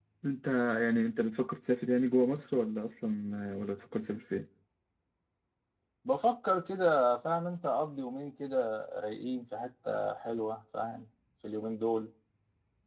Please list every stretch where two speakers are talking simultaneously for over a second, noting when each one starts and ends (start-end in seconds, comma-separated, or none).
none